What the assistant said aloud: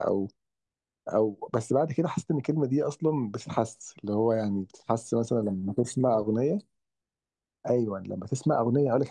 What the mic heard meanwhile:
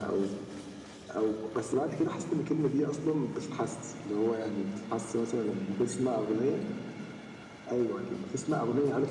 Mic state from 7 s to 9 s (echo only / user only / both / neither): echo only